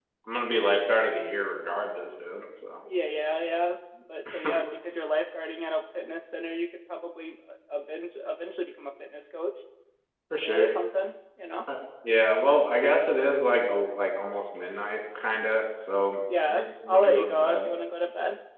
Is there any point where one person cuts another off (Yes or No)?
Yes